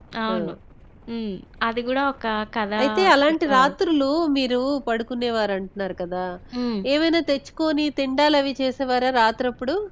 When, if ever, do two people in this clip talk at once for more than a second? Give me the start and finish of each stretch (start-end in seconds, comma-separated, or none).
none